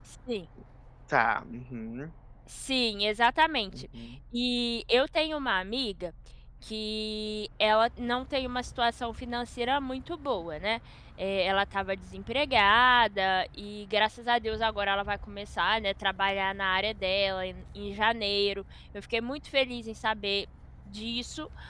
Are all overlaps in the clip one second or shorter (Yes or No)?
Yes